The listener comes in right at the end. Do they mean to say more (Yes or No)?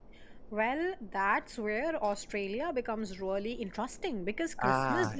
No